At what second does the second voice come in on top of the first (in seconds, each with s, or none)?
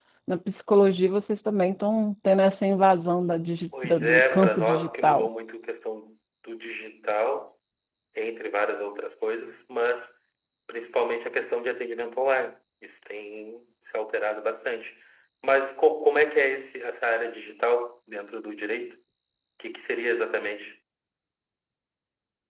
3.7 s